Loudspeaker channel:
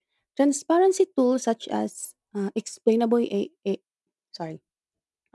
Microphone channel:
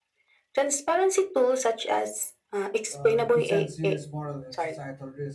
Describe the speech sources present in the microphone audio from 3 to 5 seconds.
both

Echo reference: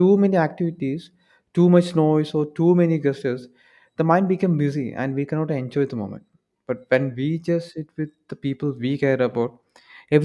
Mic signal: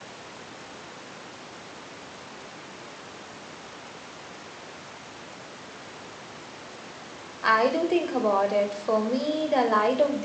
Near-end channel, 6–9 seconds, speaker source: user only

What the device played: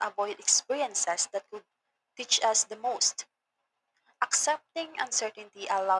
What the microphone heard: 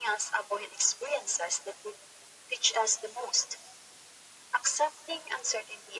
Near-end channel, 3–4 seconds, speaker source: echo only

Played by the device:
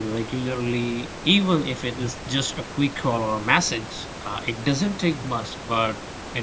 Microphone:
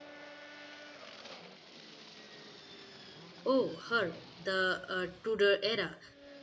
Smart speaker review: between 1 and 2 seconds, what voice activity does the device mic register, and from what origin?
neither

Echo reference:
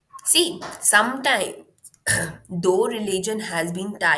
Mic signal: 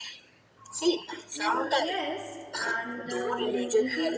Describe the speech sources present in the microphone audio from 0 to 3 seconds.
both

